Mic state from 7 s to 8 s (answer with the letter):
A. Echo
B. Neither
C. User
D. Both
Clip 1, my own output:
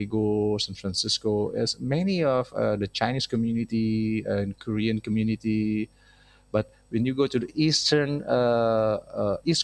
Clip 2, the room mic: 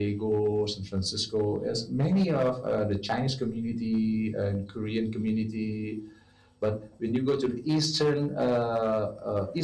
A